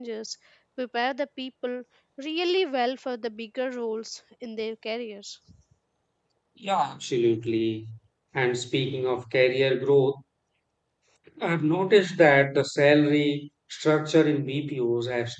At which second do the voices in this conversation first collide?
none

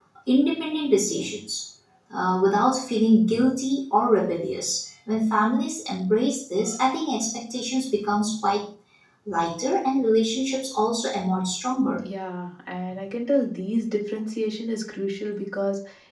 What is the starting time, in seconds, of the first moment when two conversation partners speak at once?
none

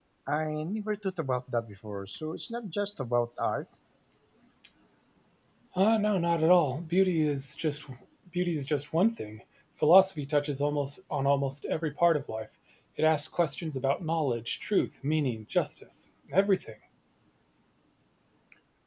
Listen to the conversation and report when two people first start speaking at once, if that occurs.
none

